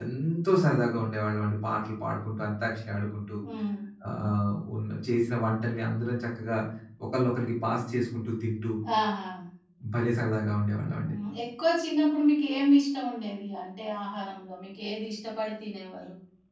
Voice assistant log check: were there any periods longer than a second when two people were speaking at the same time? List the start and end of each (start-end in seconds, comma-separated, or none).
none